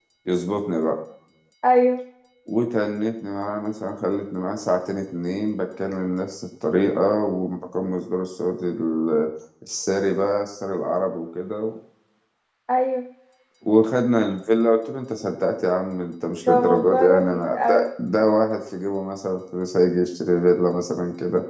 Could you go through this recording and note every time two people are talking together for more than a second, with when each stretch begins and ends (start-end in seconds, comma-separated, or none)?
16.5-17.8